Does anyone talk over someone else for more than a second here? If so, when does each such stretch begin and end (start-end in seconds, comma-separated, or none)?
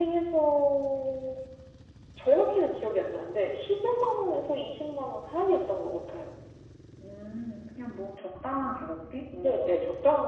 none